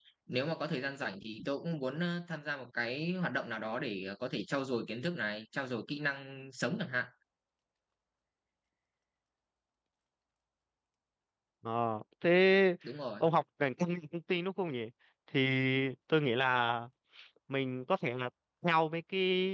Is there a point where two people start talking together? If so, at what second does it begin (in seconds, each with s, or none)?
none